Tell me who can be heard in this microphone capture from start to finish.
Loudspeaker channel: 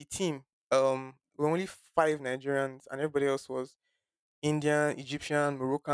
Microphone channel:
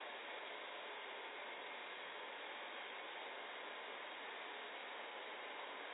neither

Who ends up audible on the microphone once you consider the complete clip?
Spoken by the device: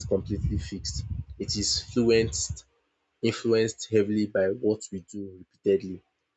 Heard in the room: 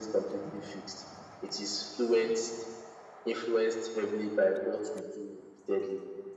echo only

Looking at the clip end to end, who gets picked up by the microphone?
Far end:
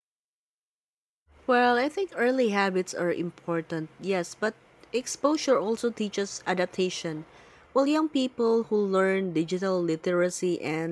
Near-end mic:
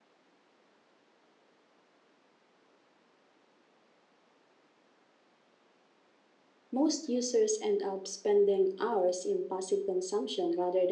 user only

